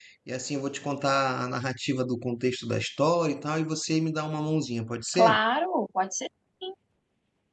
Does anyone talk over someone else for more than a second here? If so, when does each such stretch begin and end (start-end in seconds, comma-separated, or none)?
none